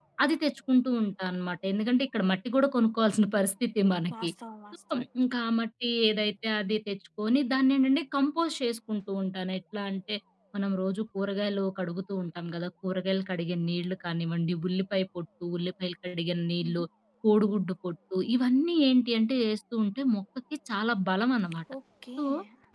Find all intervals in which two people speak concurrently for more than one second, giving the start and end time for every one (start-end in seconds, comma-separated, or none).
none